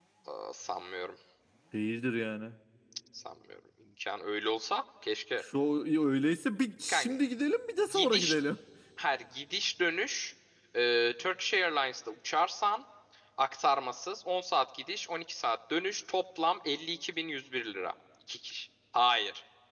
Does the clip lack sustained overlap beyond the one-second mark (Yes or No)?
Yes